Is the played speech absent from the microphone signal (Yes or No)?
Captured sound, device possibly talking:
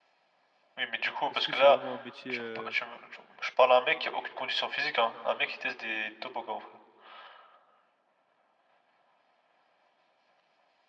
No